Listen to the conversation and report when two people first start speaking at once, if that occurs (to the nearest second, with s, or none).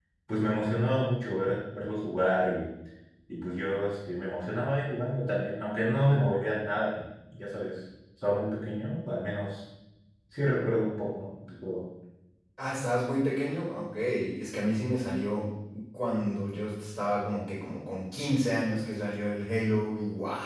none